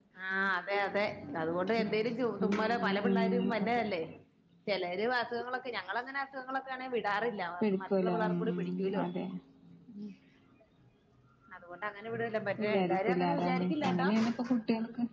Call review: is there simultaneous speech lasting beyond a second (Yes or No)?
Yes